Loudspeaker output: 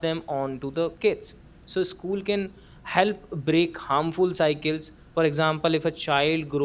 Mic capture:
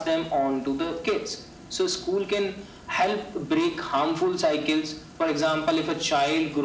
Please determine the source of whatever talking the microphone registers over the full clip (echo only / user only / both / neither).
echo only